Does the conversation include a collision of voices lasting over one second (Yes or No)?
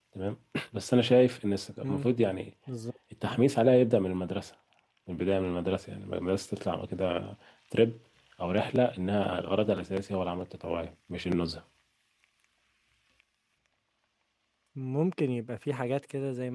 No